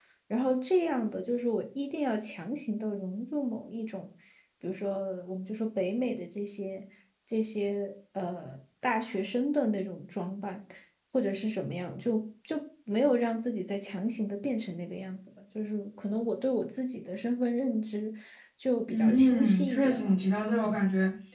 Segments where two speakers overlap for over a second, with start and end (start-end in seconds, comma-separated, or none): 18.9-20.1